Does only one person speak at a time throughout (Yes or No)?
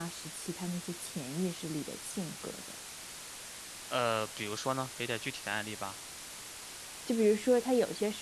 Yes